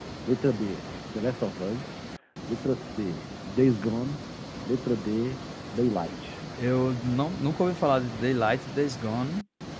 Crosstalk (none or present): none